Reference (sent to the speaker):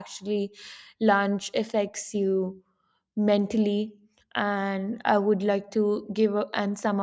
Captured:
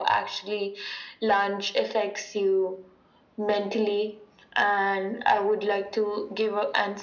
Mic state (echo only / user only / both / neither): echo only